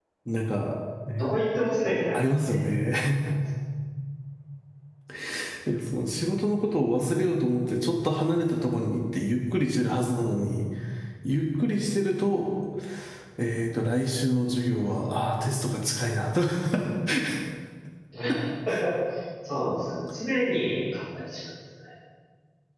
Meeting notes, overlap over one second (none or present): none